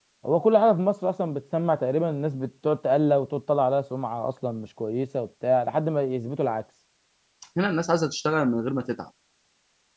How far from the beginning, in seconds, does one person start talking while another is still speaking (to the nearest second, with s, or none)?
none